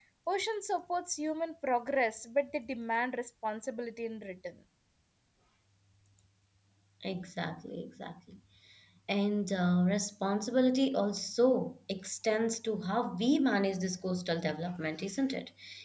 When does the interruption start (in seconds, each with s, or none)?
none